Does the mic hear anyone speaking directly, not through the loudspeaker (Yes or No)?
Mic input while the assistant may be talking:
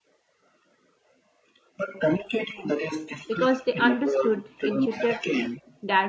Yes